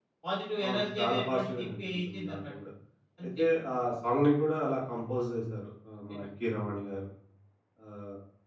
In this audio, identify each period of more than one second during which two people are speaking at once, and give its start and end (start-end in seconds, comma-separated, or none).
0.6-2.4